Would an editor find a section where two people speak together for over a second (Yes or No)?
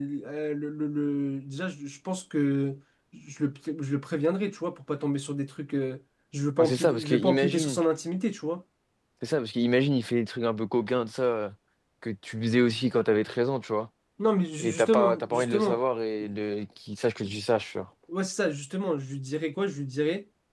Yes